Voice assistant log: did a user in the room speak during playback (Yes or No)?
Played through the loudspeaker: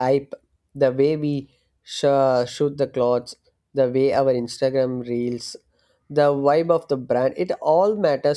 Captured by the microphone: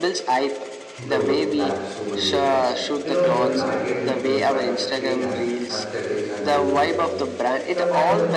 Yes